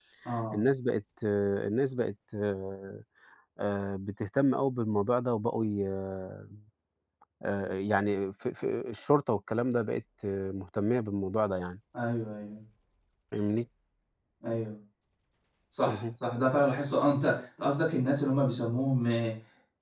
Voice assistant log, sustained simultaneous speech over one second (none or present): none